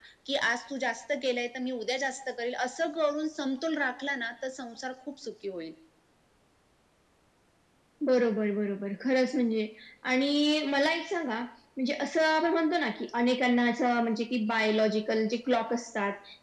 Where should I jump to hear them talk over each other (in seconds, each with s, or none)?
none